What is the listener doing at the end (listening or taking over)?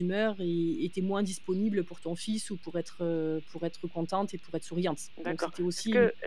taking over